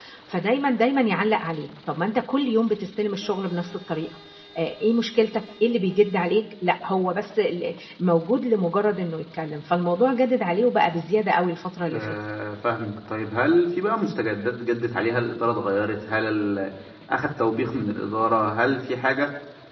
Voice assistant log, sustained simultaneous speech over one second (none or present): none